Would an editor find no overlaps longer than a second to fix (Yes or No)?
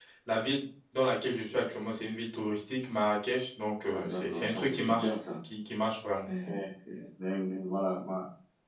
No